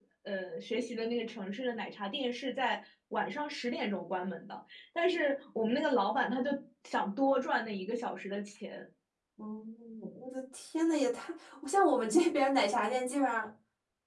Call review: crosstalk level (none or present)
none